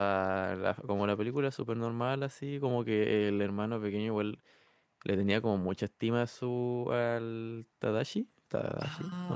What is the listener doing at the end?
taking over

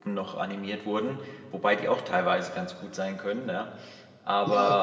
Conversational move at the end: listening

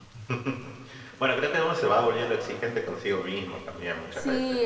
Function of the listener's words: taking over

